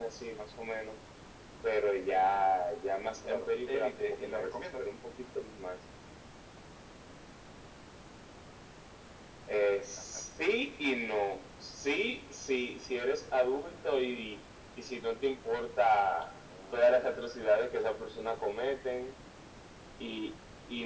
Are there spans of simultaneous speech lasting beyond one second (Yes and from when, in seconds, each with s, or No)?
Yes, from 3.2 s